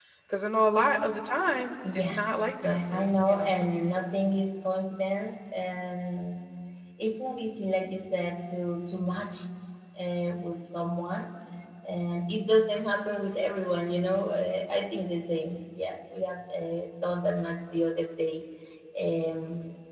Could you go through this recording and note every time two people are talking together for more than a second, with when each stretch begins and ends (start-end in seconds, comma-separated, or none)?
2.6-4.0